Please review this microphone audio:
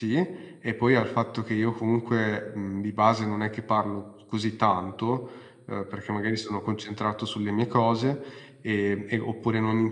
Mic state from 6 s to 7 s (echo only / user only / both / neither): user only